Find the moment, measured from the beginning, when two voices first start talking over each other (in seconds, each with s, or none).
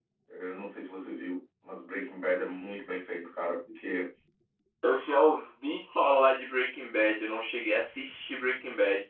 none